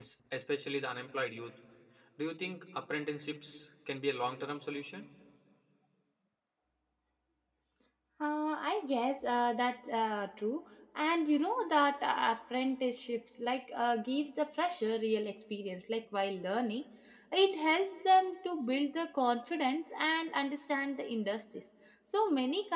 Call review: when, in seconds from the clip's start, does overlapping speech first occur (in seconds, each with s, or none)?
none